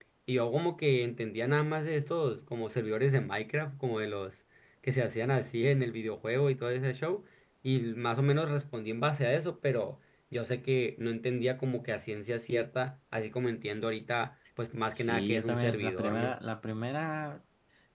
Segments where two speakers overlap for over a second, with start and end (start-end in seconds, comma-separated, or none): 14.9-16.3